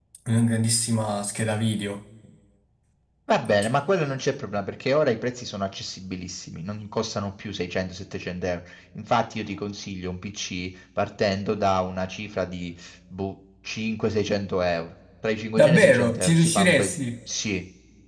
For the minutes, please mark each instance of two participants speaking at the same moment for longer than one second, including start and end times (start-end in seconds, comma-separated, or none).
15.6-16.9